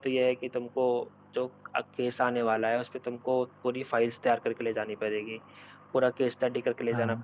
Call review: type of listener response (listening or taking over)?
listening